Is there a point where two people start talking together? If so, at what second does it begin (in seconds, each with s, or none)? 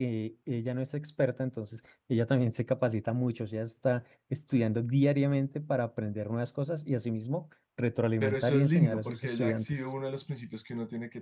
8.2 s